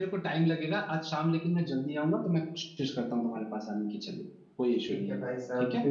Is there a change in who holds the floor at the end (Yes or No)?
Yes